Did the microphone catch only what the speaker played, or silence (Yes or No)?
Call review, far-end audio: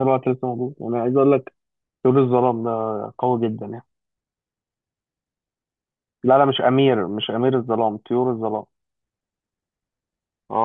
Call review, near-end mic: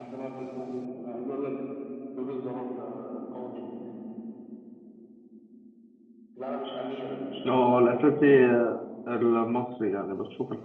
No